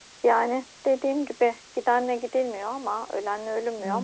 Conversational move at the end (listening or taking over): listening